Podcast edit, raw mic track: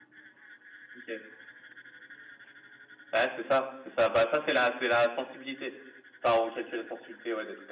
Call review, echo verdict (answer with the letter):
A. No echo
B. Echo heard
A